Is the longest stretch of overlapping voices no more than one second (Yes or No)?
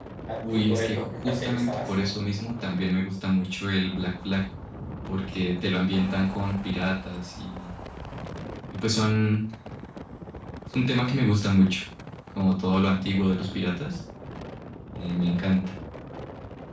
No